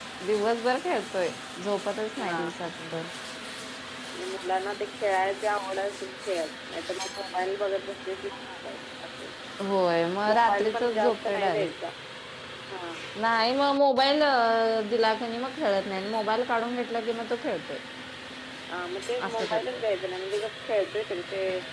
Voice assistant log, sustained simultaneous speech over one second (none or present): present